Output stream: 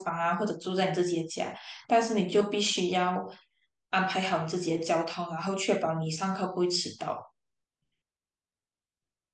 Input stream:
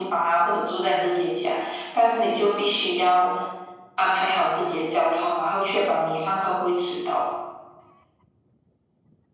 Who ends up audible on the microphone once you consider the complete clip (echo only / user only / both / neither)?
echo only